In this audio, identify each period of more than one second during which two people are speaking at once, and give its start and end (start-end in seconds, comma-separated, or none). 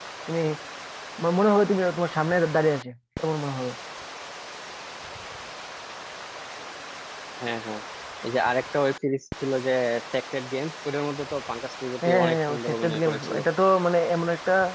12.0-13.4